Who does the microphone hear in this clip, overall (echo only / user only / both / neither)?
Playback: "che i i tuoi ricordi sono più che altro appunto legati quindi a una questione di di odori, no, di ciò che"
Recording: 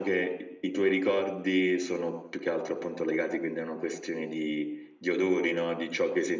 echo only